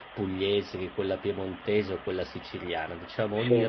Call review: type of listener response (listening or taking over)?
listening